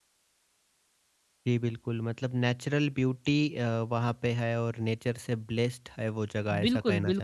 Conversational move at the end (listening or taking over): taking over